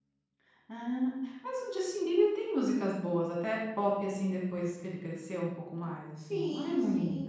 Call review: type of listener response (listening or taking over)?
taking over